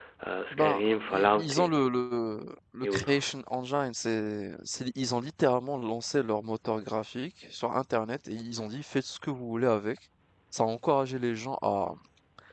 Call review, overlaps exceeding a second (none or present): present